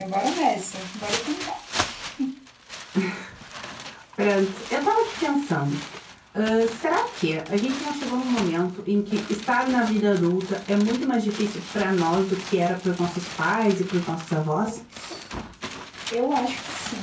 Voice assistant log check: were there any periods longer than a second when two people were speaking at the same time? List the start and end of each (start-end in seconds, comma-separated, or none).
none